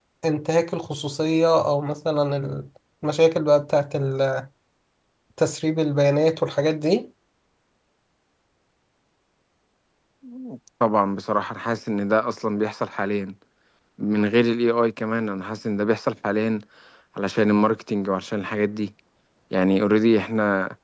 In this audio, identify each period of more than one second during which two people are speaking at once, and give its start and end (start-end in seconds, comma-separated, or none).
none